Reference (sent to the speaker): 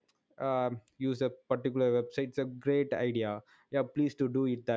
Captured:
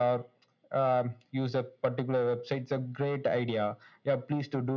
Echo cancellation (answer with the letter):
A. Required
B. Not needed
A